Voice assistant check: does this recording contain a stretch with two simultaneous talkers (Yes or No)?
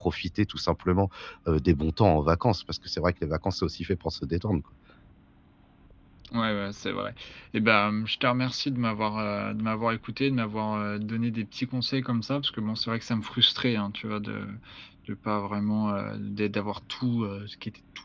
No